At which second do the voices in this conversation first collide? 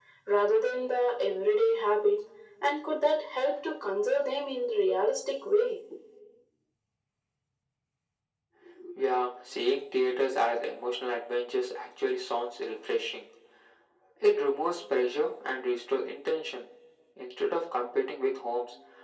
none

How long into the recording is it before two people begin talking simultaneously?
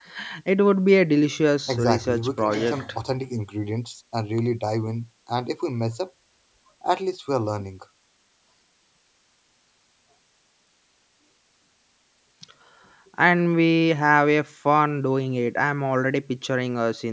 1.7 s

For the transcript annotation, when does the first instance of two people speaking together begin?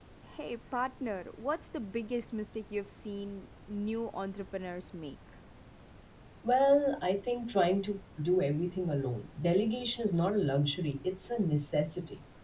none

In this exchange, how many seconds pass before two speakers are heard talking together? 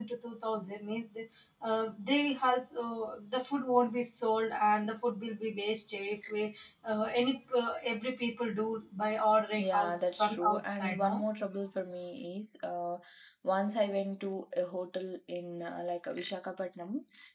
9.5 s

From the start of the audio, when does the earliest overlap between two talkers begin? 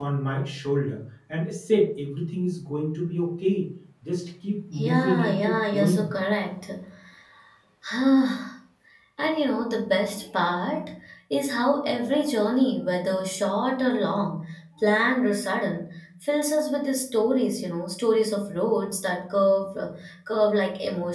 4.8 s

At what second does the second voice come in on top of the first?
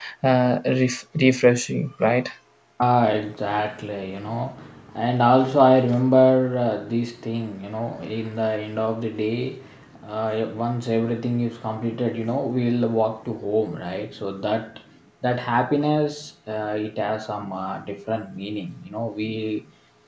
none

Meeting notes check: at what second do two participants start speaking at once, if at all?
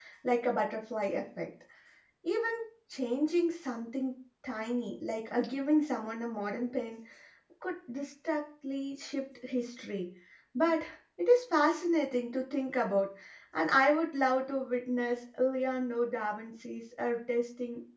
none

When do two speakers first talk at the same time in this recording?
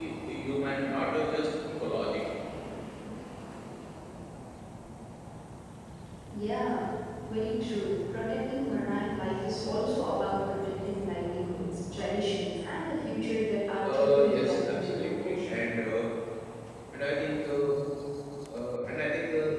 13.8 s

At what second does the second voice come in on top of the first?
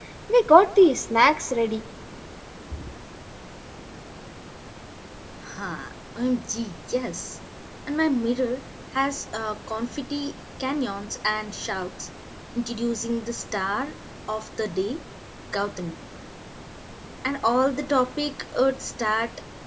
none

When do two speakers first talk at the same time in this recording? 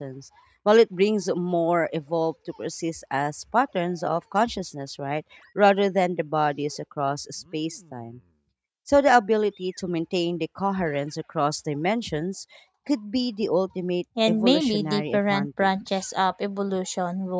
14.2 s

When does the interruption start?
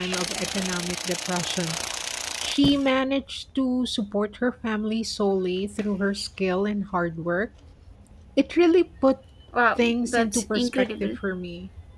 9.8 s

